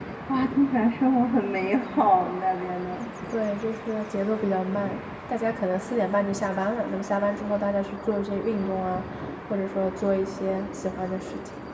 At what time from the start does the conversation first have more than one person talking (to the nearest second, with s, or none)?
none